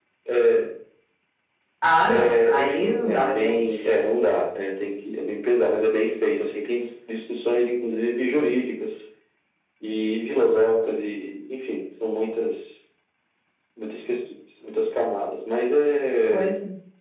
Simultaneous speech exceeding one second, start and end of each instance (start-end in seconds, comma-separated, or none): 2.1-3.9